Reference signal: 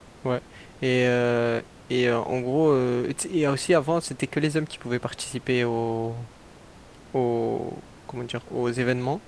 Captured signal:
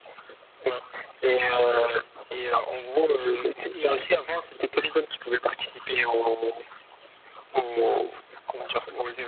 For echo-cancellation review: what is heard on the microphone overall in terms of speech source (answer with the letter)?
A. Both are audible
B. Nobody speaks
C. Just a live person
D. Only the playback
D